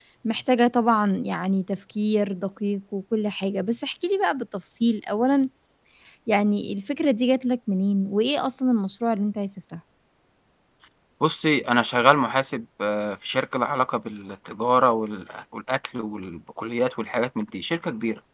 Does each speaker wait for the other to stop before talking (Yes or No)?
Yes